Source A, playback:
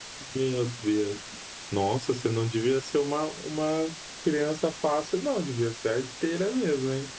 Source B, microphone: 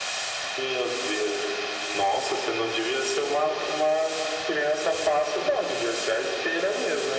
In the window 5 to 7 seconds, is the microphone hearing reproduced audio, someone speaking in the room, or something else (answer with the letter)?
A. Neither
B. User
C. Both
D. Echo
D